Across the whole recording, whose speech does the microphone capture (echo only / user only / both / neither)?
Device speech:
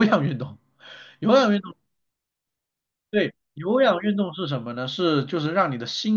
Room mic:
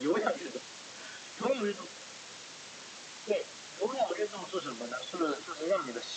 echo only